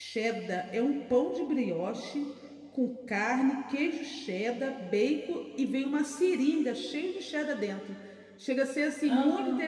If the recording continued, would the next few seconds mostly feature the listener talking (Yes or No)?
No